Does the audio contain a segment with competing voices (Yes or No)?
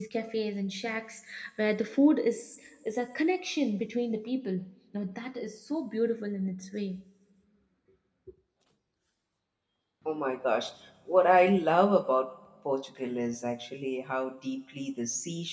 No